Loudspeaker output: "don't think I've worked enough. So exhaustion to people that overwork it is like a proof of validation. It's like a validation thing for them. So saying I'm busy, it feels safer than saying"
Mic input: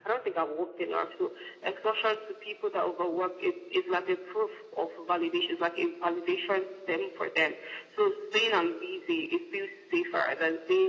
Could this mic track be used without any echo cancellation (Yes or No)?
No